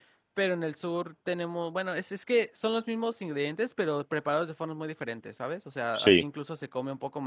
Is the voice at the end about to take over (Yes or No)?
No